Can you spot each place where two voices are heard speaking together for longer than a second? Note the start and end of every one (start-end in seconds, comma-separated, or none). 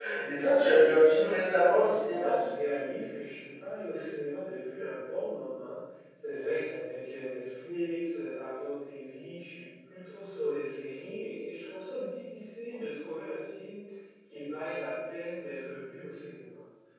1.0-2.3